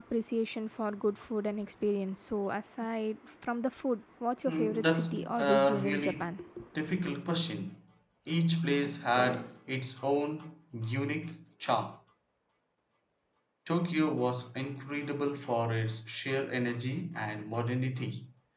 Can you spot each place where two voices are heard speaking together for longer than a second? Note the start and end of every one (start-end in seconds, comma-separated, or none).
4.5-6.3